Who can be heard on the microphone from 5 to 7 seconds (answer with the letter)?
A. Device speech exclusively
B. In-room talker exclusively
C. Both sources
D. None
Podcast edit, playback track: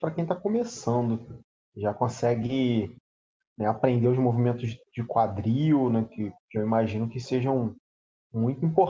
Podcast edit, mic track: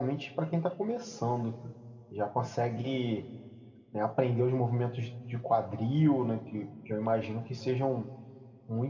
A